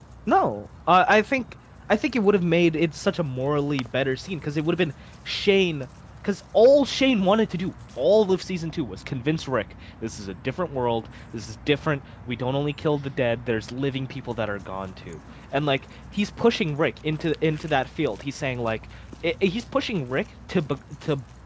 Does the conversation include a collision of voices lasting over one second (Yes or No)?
No